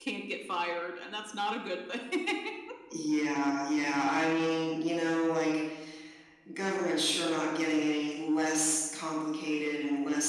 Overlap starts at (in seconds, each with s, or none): none